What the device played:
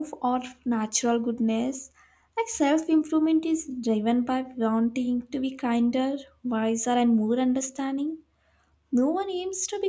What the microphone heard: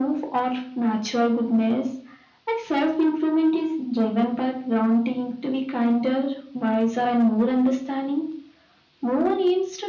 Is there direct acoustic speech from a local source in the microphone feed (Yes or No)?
No